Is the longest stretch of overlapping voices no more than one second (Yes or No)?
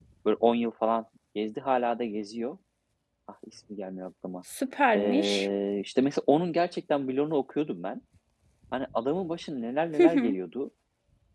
Yes